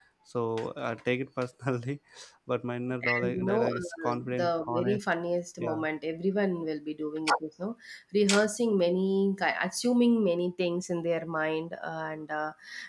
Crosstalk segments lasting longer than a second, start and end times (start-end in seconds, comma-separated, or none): 3.2-5.0